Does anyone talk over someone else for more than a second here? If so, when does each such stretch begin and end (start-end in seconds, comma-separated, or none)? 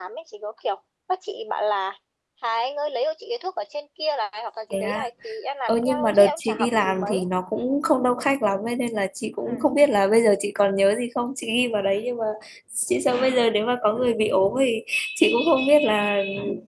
5.7-7.2